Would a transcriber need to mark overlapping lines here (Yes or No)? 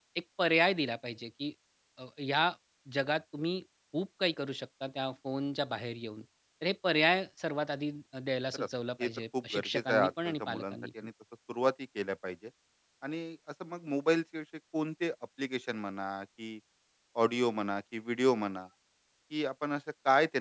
Yes